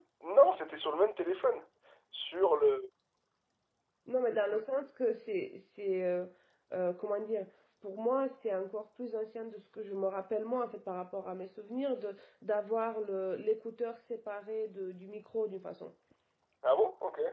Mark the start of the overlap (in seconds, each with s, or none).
none